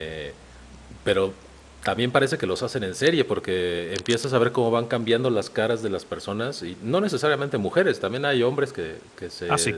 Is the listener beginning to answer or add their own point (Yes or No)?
No